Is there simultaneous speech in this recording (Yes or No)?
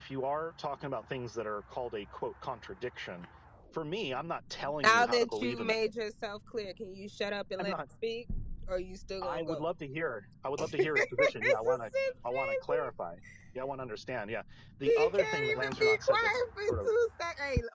Yes